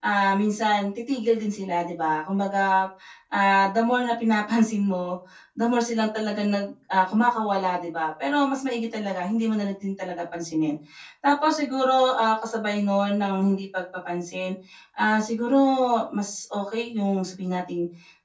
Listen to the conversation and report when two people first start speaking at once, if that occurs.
none

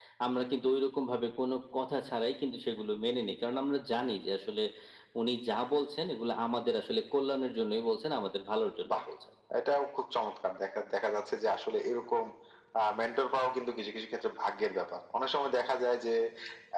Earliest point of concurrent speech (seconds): none

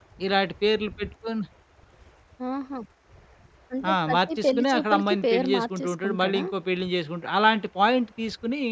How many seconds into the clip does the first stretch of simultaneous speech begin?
3.9 s

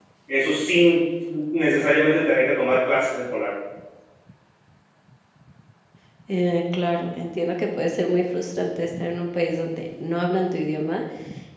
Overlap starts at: none

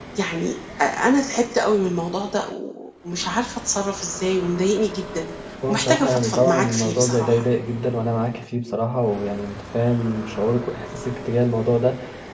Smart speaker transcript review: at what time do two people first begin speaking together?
5.7 s

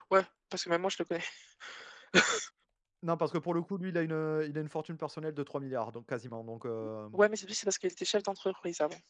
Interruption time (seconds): none

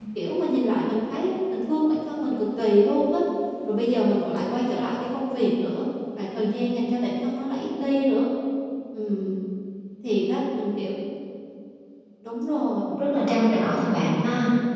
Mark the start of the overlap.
none

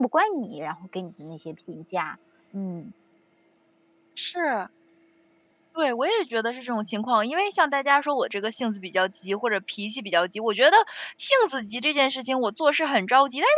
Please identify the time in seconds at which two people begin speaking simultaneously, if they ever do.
none

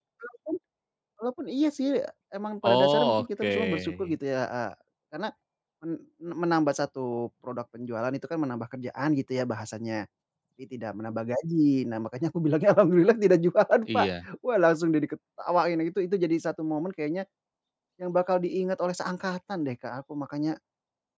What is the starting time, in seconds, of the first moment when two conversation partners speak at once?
2.6 s

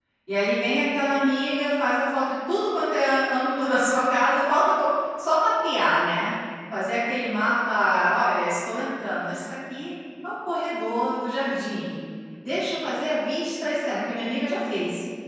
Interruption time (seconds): none

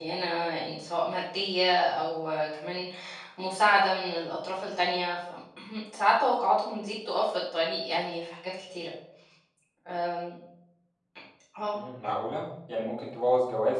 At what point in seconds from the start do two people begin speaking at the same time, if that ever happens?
none

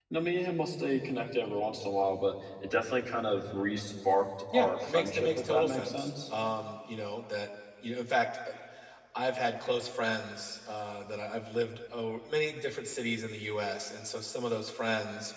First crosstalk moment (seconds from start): 4.5 s

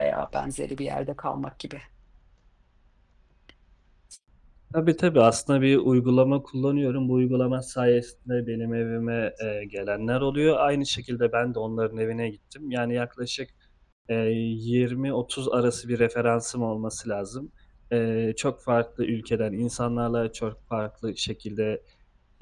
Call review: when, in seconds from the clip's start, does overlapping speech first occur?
none

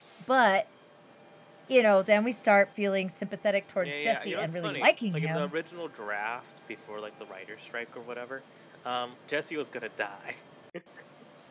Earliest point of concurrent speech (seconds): 3.8 s

